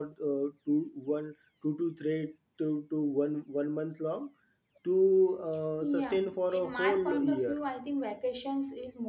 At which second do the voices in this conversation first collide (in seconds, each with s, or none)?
5.8 s